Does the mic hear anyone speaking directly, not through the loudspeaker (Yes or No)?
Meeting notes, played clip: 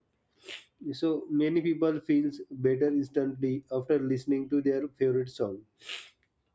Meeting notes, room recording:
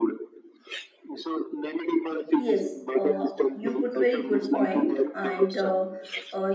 Yes